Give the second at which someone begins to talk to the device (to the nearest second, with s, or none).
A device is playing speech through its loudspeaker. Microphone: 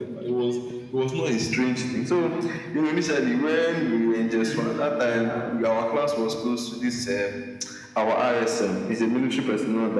4 s